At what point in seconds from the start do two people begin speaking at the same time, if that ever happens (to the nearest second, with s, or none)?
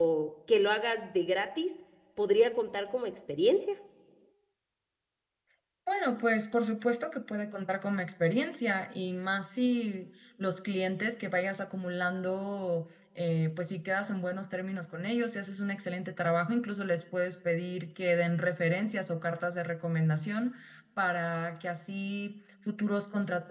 none